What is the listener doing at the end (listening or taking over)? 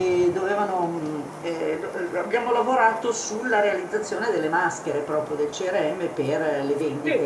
listening